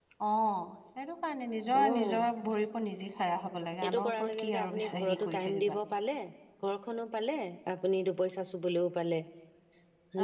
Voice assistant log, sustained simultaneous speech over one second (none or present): present